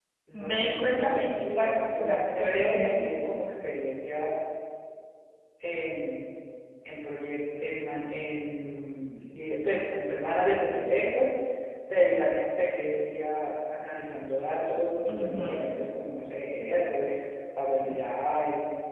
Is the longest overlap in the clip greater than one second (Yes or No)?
Yes